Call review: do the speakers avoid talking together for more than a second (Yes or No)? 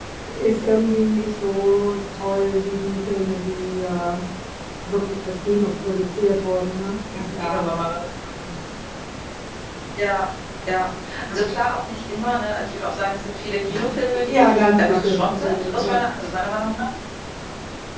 No